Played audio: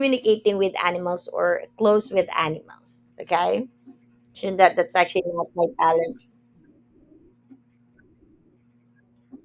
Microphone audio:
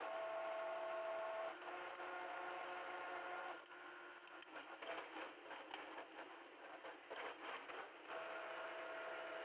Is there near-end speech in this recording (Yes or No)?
No